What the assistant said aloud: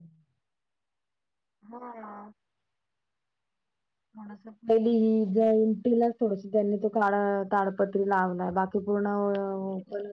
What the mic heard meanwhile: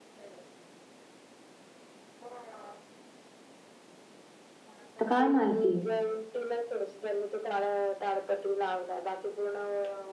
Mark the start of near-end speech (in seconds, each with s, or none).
5.0 s